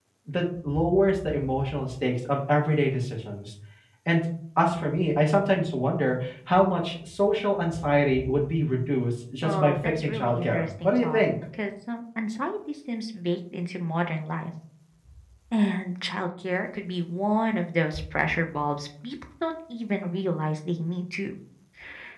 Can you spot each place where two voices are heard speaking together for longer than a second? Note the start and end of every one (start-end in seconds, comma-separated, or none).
9.4-11.2